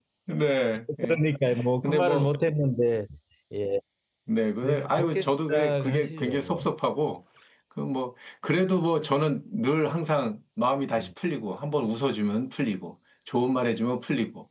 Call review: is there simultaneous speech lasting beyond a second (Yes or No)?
Yes